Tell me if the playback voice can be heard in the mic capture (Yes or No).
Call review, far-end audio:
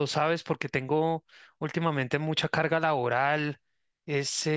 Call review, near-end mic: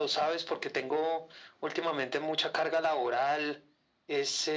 Yes